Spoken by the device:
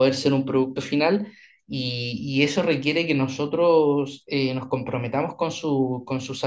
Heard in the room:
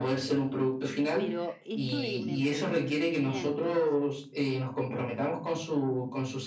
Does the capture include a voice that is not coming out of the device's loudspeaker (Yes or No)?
Yes